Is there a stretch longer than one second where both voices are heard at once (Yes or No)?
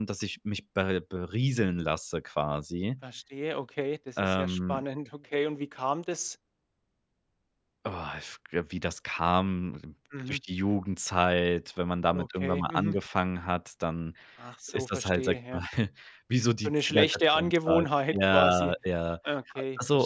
Yes